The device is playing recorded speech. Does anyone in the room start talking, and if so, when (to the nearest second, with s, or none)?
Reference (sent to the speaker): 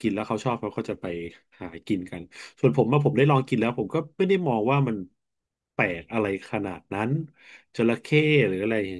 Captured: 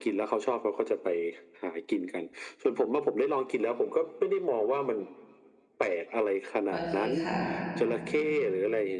7 s